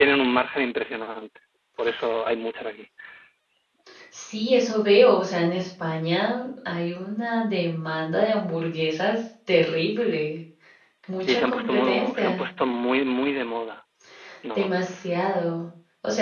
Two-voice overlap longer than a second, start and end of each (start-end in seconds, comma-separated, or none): 11.3-12.5